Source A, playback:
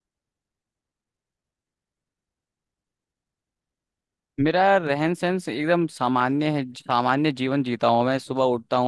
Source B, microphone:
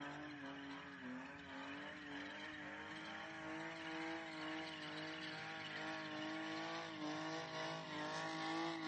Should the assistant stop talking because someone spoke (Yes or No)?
No